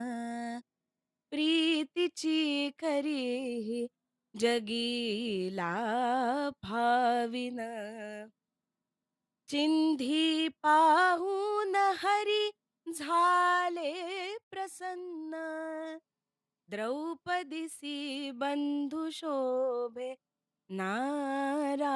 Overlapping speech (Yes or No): No